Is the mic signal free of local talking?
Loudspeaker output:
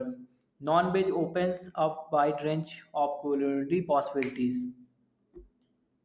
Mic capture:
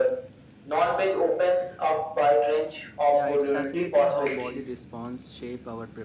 No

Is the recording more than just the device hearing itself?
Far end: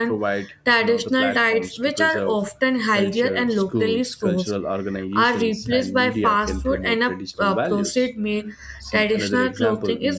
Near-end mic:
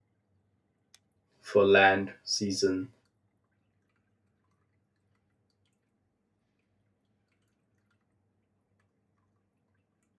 Yes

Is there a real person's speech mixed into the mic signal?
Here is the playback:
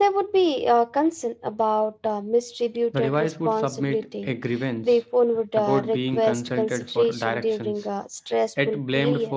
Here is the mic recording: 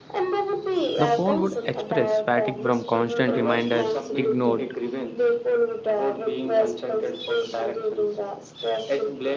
Yes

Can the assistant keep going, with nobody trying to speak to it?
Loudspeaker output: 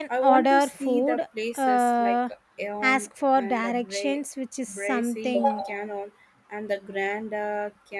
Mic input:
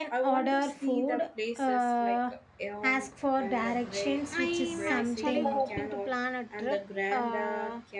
No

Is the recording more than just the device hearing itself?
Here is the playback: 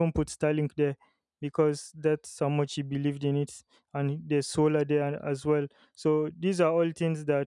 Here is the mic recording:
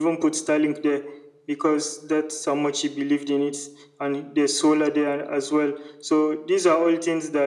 No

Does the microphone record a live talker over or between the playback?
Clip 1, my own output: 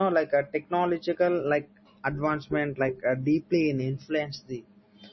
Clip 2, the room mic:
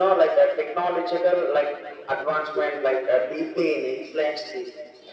No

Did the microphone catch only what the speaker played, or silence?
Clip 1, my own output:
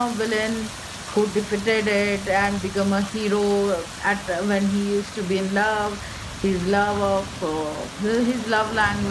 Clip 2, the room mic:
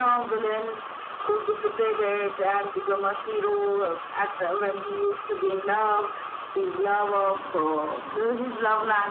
Yes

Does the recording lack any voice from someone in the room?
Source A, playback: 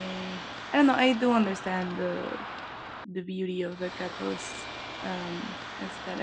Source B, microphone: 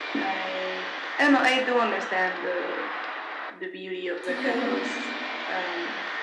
No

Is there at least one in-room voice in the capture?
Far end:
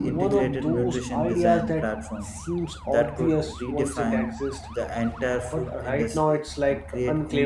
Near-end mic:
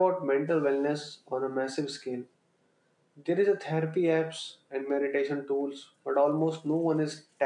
Yes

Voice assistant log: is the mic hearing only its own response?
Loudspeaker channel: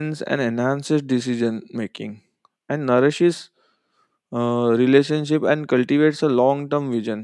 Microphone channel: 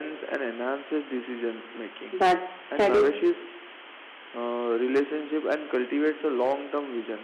No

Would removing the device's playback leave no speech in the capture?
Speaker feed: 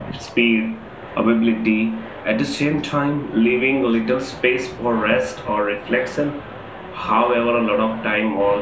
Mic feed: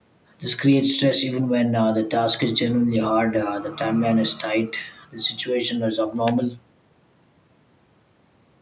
No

